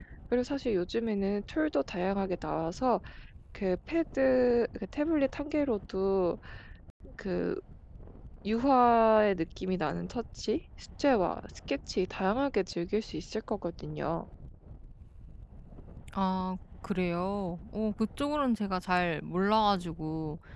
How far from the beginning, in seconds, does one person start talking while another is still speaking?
none

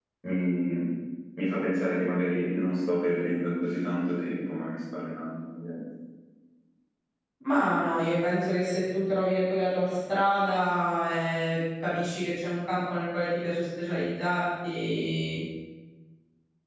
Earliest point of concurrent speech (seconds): none

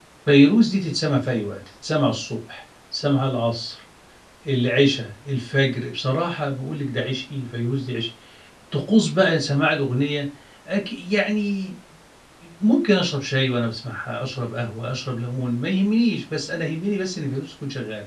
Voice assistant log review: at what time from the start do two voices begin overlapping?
none

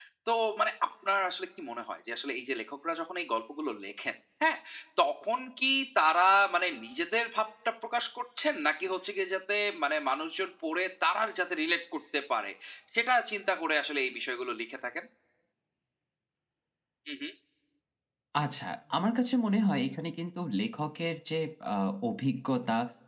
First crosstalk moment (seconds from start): none

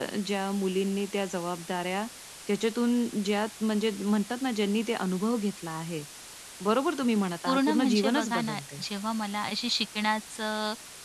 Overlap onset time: 7.5 s

